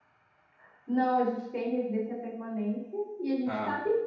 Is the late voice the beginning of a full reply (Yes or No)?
No